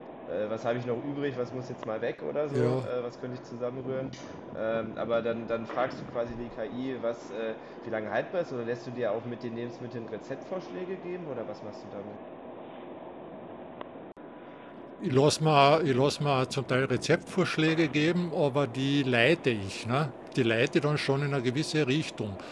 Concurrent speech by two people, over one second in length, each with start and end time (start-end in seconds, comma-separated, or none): none